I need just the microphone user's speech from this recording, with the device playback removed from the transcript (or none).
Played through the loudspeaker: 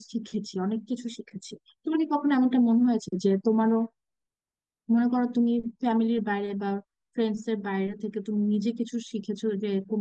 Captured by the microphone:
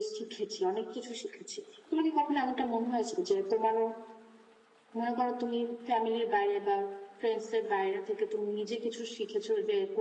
none